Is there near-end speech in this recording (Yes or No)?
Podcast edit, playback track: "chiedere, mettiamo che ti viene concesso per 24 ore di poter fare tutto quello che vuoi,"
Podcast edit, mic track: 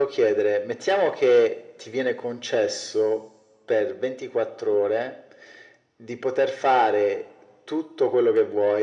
No